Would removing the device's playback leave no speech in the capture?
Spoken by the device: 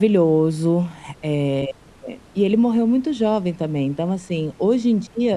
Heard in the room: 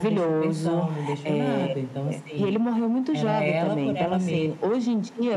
No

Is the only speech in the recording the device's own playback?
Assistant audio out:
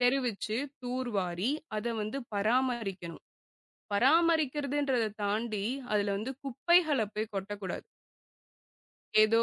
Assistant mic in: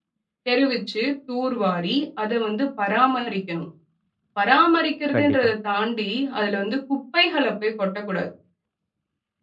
No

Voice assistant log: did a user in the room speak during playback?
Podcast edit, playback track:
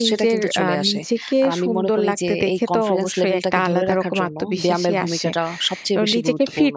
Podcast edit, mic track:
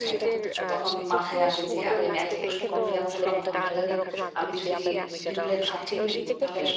Yes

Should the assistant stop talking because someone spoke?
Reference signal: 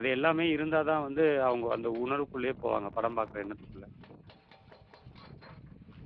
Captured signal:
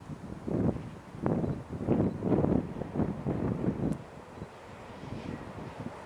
No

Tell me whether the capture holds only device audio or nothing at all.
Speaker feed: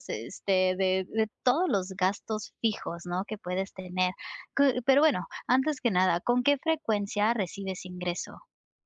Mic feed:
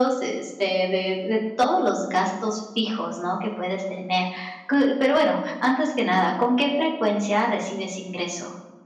Yes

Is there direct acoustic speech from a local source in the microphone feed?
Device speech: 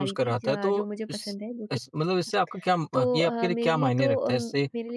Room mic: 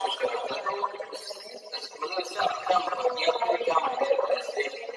No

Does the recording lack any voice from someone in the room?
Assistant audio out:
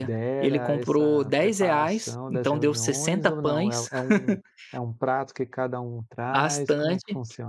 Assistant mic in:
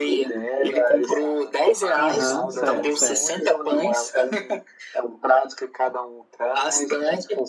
No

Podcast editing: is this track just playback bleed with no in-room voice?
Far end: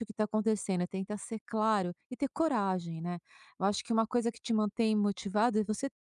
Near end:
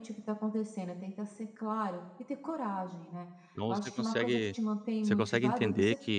No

